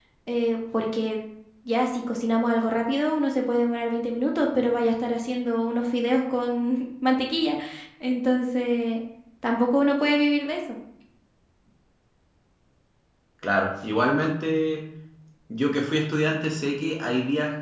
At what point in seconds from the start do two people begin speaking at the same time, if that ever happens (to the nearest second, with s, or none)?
none